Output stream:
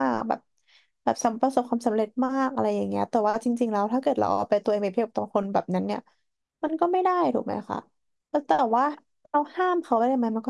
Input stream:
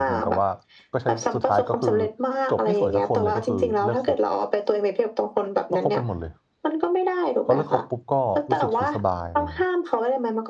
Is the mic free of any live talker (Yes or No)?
No